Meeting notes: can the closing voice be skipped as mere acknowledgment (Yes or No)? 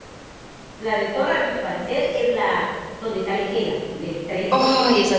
No